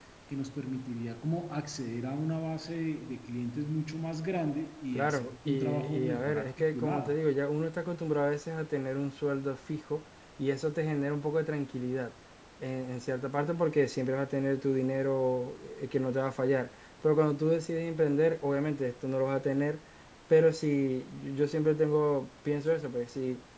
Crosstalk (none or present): present